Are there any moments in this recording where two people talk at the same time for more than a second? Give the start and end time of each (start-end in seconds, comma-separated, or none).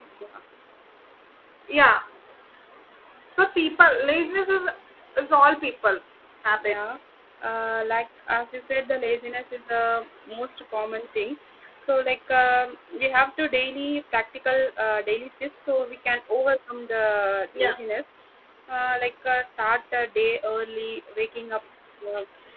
none